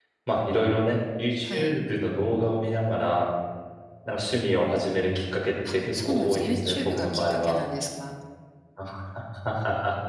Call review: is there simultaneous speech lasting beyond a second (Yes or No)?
Yes